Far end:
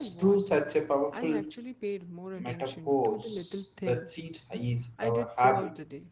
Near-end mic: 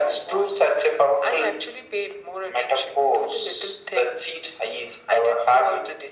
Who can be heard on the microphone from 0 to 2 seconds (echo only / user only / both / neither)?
echo only